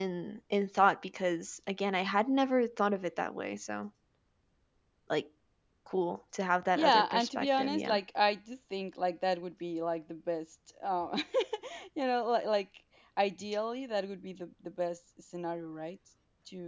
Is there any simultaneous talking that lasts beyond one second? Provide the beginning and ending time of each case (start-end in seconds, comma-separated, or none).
6.8-8.0